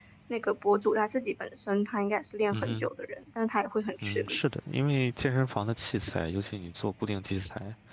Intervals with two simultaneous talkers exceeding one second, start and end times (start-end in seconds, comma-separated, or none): none